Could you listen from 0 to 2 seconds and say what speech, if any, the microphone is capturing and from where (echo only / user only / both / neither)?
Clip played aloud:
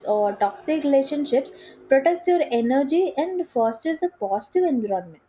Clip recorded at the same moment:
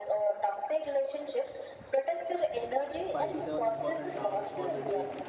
echo only